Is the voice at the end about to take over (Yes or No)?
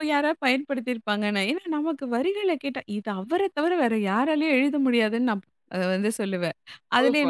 Yes